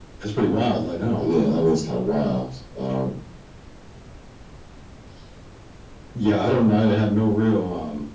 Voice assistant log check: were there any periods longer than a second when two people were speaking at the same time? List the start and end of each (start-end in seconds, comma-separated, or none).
none